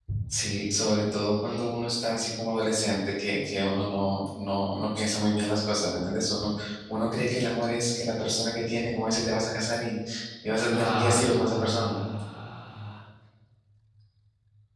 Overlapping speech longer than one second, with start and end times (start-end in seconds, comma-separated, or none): 10.7-12.0